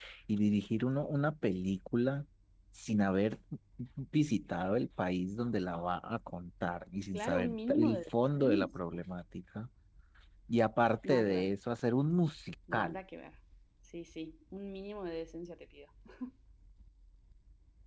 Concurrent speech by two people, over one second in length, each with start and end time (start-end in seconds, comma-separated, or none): 7.1-8.9